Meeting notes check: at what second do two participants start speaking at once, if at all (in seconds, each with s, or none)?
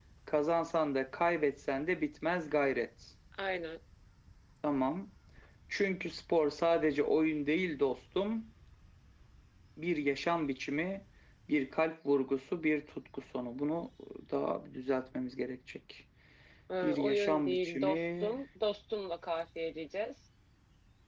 16.8 s